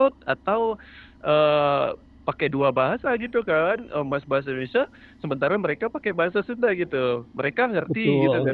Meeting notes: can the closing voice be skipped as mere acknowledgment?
No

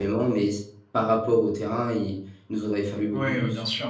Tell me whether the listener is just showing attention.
No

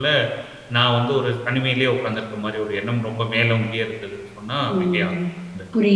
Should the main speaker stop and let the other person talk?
Yes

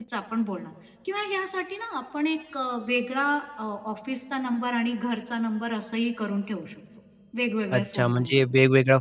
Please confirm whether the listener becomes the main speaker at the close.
Yes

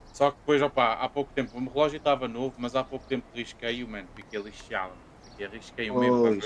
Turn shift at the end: No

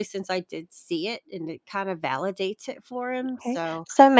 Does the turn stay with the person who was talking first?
No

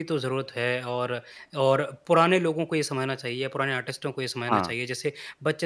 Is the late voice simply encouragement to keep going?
Yes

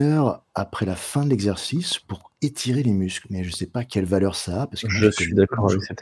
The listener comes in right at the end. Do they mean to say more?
Yes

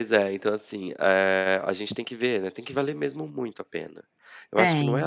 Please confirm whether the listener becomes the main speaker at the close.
No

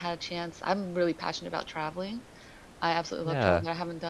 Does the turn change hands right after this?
No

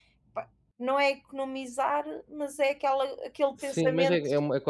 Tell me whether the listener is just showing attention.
No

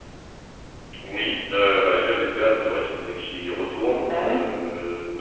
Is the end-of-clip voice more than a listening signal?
No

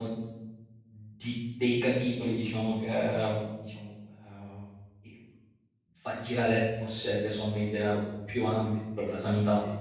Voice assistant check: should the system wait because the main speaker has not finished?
Yes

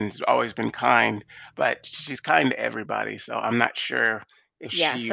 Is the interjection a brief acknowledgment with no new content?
No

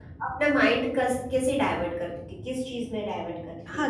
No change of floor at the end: No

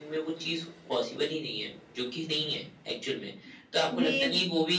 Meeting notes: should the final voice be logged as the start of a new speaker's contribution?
No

